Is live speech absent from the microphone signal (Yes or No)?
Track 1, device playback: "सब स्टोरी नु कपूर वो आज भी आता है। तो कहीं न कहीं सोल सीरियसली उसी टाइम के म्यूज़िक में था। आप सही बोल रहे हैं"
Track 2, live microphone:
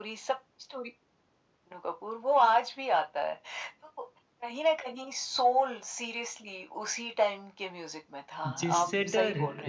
No